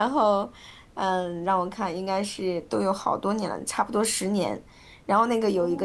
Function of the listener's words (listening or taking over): listening